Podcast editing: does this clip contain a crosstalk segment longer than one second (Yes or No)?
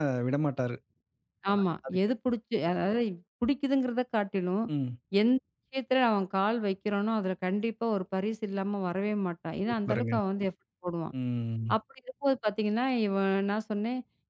No